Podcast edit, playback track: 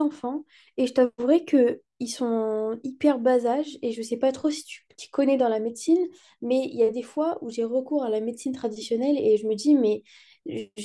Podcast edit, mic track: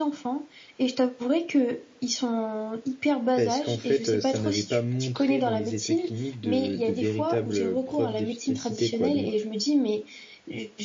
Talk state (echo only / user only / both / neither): both